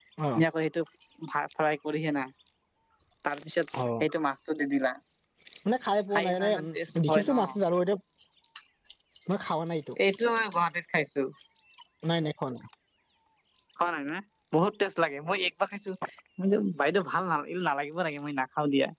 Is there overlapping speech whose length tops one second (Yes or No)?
Yes